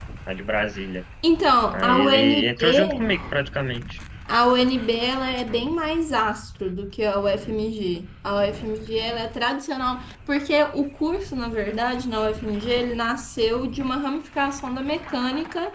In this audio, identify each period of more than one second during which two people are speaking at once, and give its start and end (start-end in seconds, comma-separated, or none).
1.7-3.2